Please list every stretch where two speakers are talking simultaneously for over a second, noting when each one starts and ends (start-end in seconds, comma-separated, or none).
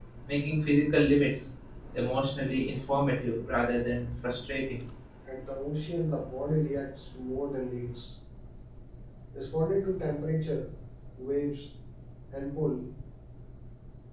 none